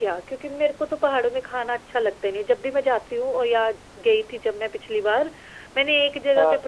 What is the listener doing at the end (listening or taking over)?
listening